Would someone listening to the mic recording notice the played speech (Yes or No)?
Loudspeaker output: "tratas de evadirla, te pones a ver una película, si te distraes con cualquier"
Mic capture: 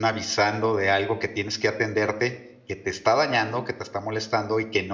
No